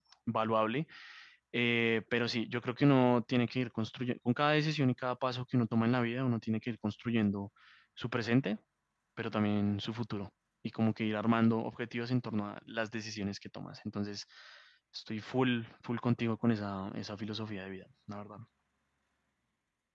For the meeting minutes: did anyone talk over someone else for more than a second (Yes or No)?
No